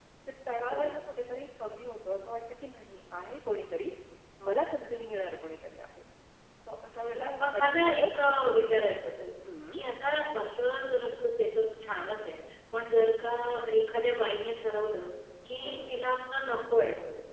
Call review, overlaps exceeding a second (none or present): present